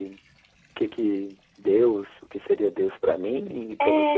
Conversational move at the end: taking over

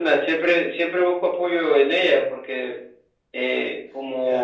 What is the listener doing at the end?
taking over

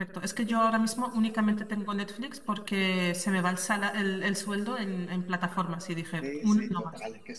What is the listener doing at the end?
taking over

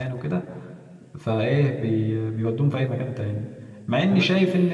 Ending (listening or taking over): listening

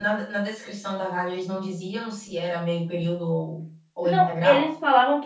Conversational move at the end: taking over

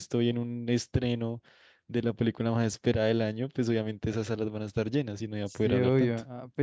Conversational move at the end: taking over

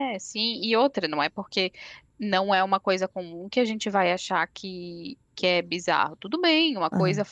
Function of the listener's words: listening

